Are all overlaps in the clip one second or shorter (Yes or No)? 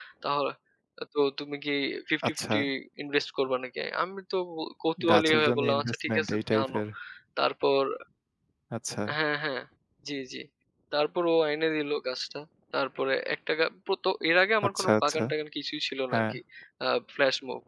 No